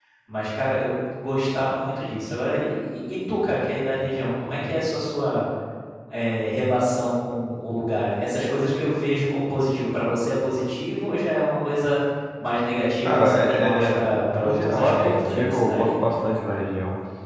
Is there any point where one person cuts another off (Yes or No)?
Yes